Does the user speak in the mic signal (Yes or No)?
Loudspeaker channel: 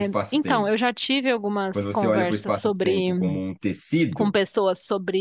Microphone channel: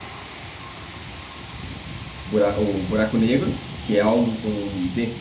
Yes